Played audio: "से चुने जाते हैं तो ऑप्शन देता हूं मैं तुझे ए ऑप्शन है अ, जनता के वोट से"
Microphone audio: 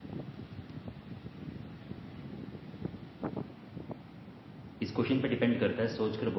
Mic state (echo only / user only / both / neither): user only